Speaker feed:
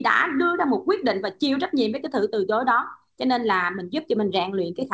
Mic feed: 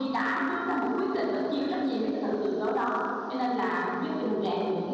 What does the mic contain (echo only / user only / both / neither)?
echo only